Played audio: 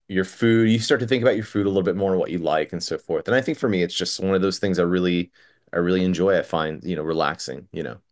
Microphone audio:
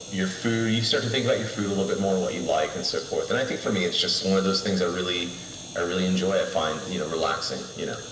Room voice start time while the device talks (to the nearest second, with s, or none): none